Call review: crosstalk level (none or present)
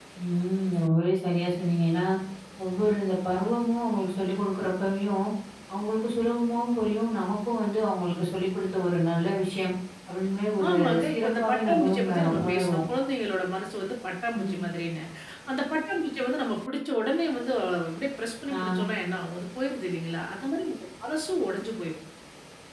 present